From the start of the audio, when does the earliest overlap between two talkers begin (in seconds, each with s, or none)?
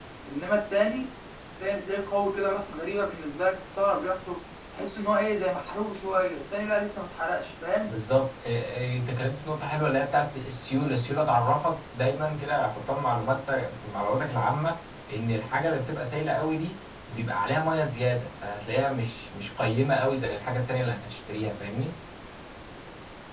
none